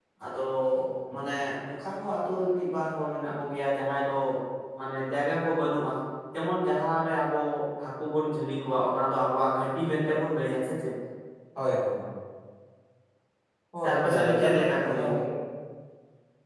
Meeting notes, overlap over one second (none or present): present